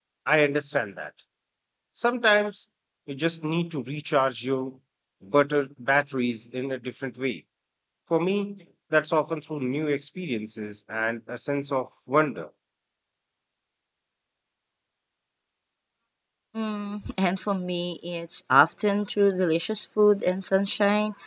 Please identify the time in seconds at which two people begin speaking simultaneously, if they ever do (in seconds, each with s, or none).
none